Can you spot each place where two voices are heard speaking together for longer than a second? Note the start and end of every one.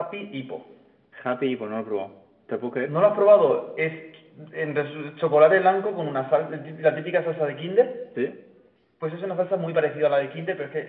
none

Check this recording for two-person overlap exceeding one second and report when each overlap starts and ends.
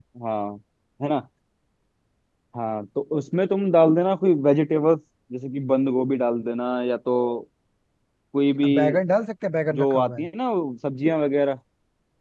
none

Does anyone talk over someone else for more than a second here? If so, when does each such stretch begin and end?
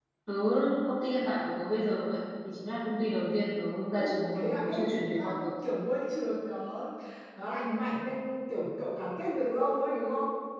4.0-5.5

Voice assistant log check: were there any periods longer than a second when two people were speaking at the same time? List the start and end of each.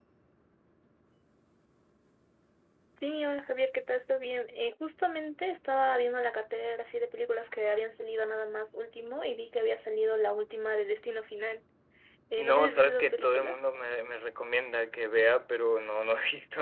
12.4-13.6

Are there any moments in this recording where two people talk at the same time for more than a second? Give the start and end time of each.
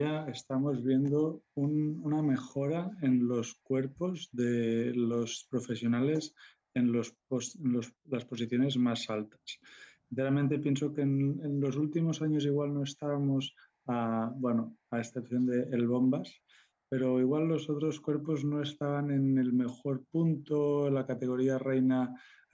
none

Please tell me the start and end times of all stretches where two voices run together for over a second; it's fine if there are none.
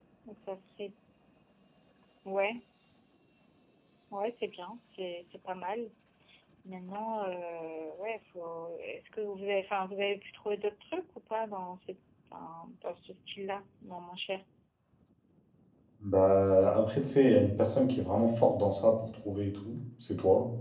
none

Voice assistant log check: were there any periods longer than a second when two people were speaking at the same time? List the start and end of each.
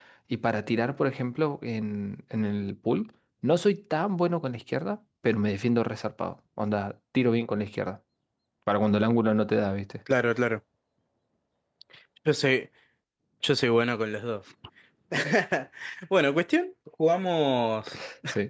none

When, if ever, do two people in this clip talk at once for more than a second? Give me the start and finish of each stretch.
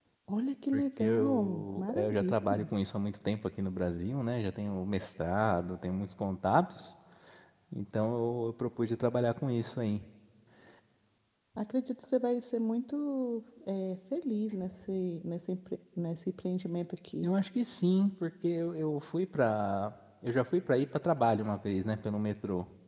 0.7-2.6

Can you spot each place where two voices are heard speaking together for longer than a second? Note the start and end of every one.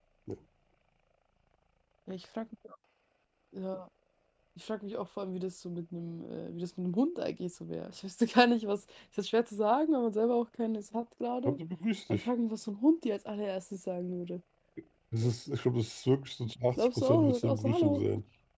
16.8-18.0

